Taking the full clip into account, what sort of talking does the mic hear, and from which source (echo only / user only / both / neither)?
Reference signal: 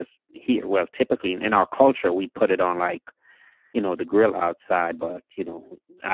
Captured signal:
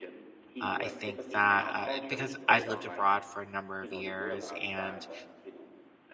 both